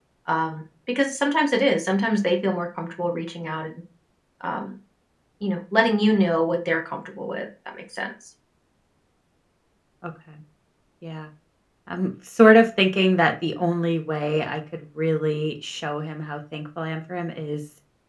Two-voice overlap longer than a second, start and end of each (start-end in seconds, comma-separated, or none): none